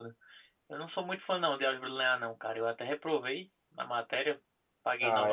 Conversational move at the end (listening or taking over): taking over